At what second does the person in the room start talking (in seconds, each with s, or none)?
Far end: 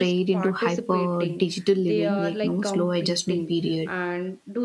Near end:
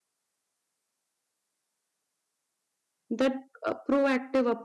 3.1 s